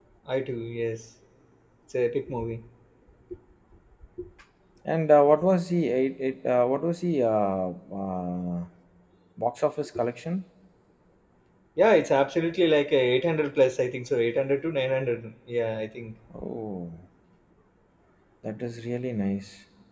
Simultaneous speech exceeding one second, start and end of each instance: none

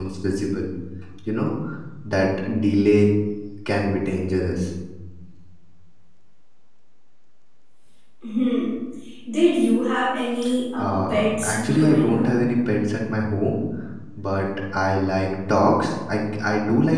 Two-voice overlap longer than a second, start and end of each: 10.8-12.3

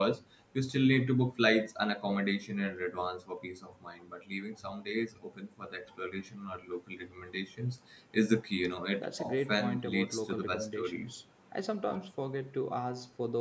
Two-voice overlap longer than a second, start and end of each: 9.0-11.2

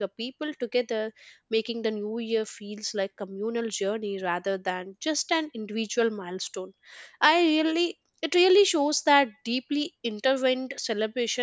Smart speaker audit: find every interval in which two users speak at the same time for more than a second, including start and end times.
none

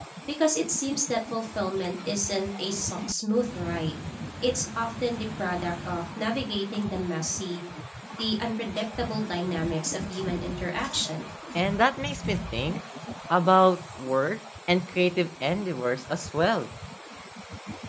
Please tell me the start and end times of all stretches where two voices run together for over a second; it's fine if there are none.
none

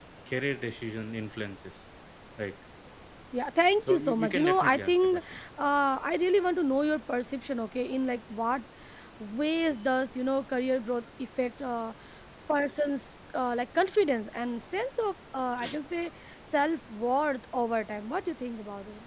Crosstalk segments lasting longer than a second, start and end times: 3.8-5.2

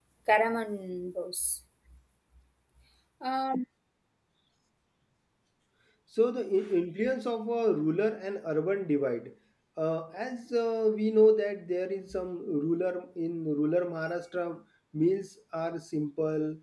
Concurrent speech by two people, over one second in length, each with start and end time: none

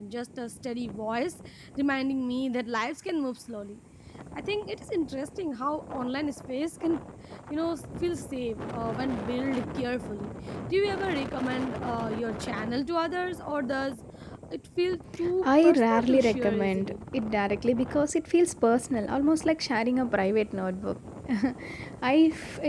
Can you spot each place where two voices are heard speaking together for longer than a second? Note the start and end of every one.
15.4-16.9

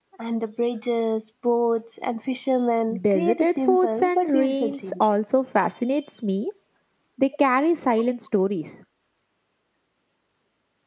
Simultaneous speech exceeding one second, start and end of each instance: 3.1-5.2

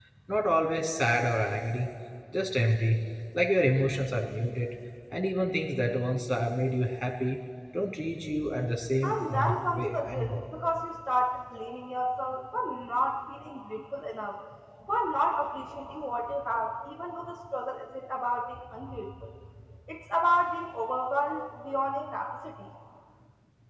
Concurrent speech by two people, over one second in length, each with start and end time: 9.0-10.3

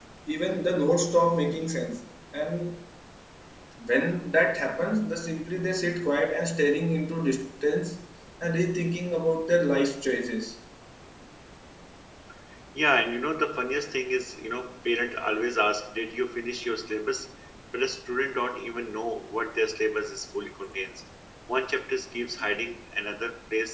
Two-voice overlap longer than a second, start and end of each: none

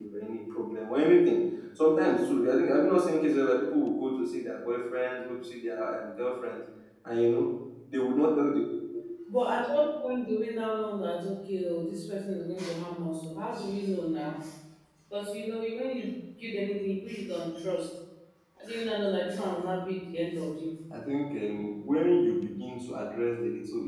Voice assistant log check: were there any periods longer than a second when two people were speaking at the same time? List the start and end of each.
none

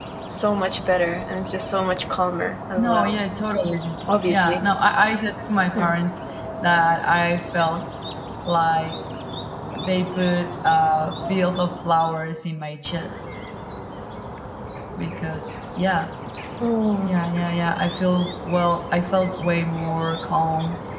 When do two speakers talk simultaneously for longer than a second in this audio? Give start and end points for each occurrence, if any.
none

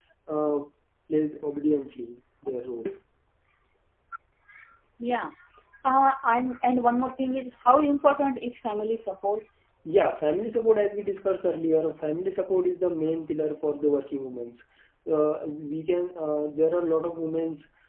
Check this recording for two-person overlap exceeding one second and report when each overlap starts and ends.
none

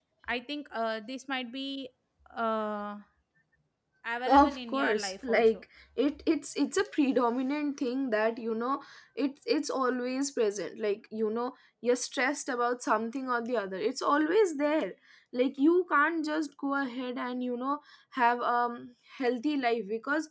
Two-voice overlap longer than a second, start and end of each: 4.3-5.6

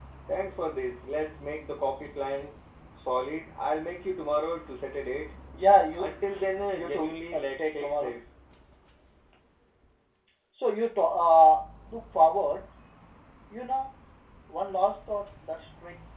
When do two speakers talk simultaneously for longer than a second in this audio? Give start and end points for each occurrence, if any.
6.8-8.1

